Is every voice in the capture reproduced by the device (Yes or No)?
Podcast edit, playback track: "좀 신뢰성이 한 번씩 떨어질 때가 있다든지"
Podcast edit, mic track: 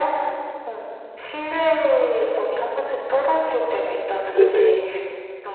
No